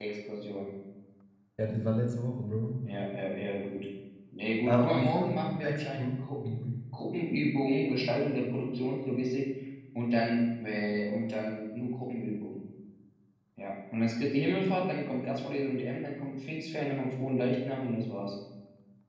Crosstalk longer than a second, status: present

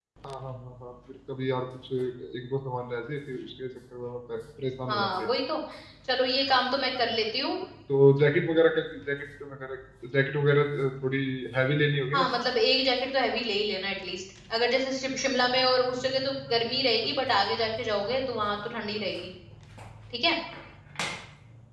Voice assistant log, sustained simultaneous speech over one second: none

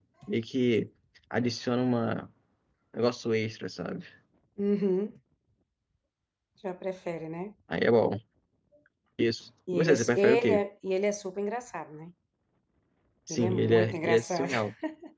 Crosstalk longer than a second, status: present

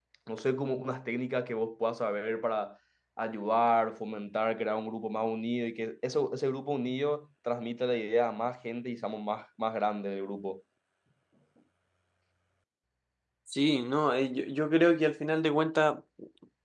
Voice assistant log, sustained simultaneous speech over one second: none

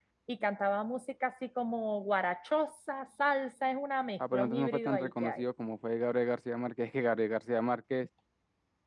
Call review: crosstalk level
present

